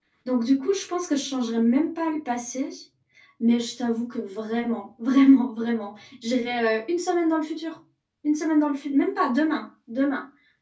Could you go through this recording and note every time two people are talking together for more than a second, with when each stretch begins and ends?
none

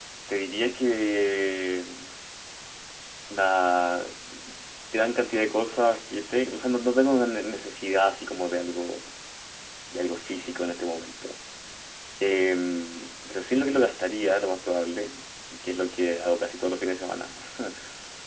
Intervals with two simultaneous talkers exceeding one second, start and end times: none

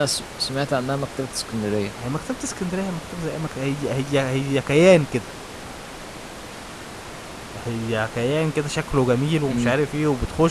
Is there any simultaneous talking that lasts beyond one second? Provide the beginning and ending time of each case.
none

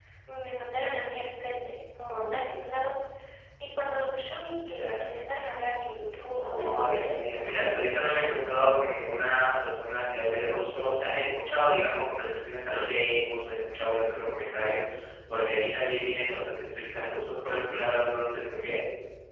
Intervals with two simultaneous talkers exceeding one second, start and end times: 6.3-8.4

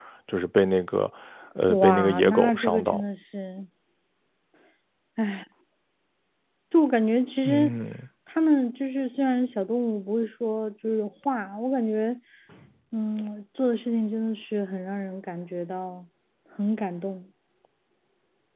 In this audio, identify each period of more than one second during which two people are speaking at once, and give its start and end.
1.7-3.0

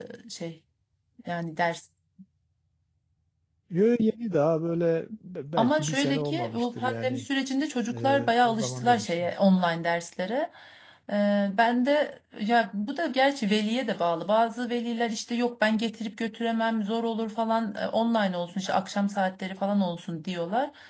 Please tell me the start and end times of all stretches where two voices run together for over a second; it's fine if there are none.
5.6-7.3, 7.9-9.3

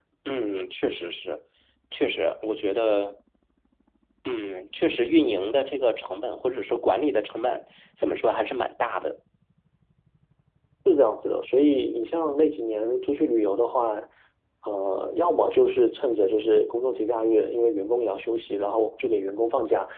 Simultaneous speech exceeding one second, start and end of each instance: none

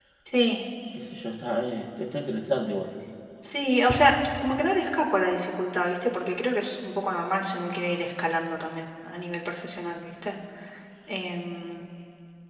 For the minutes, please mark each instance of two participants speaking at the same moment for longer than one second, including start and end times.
none

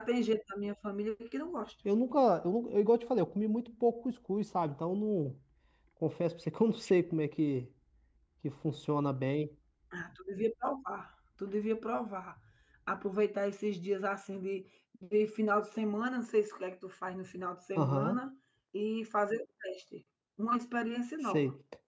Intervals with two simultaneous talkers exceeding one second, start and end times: none

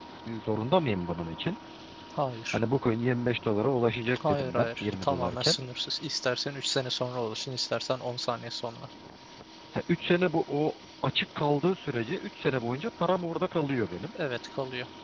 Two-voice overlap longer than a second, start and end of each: 4.3-5.5

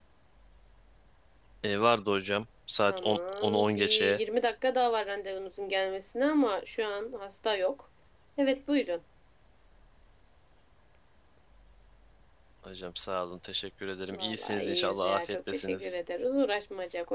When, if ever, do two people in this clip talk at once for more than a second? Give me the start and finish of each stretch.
2.9-4.2, 14.1-15.9

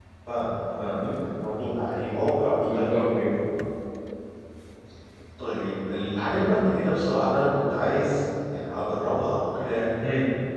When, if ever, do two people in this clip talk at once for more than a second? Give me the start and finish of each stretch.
none

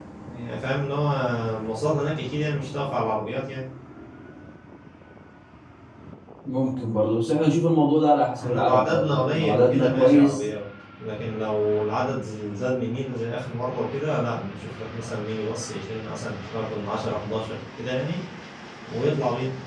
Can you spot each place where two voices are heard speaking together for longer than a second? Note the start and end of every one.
8.4-10.4

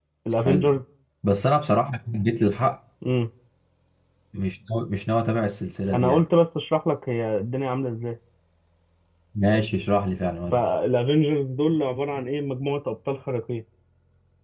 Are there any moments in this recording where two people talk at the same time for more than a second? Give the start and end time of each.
none

